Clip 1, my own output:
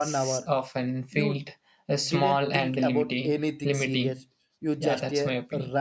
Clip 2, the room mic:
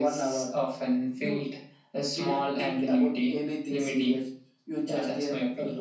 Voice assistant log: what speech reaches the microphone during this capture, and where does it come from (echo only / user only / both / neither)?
echo only